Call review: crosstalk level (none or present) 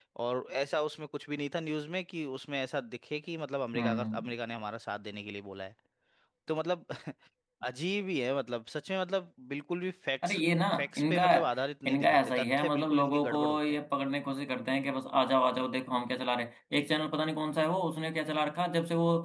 present